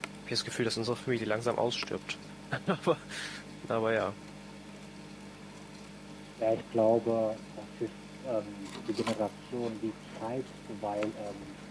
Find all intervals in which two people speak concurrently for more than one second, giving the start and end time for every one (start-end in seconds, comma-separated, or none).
none